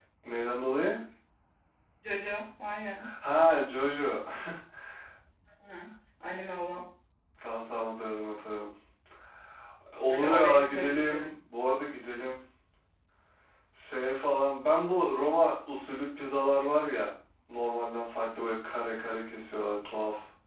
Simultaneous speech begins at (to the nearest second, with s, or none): 10 s